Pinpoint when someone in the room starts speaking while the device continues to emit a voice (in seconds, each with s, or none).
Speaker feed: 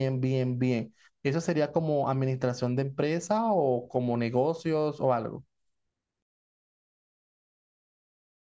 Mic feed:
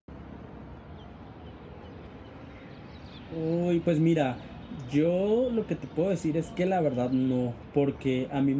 3.2 s